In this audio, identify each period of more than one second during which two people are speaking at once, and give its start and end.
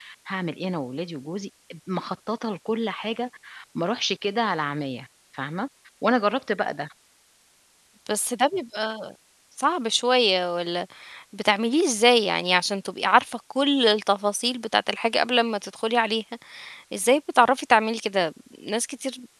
none

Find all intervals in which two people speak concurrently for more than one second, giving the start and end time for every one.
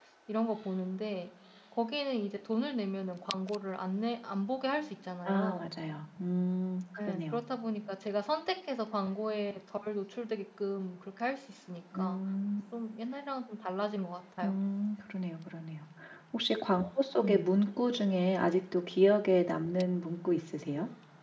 none

